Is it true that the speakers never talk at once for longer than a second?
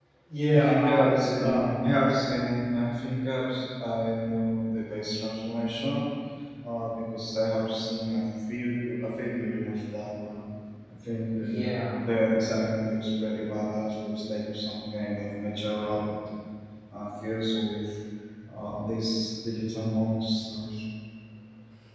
No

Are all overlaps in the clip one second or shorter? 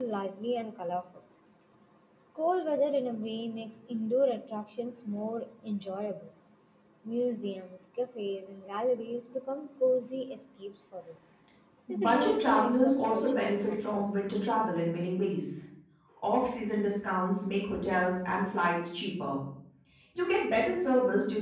No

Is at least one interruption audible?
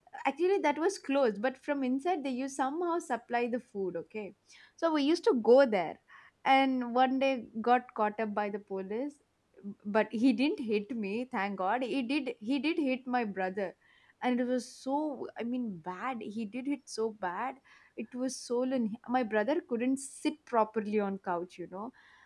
No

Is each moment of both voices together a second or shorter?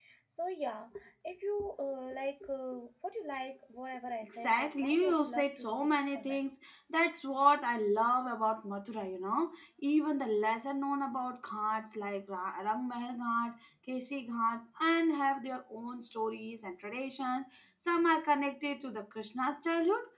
No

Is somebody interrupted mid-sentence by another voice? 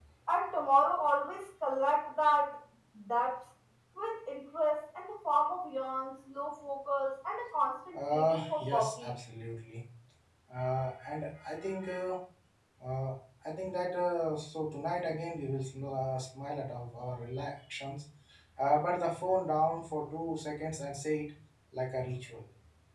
Yes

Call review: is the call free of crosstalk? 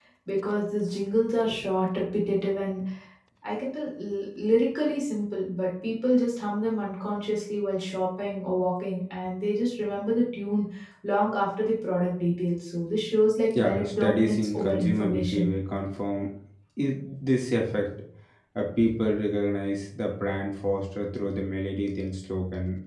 No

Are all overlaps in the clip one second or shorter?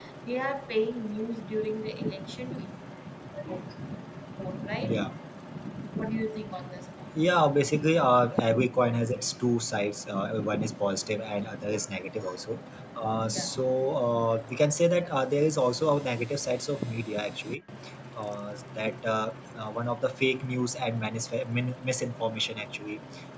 Yes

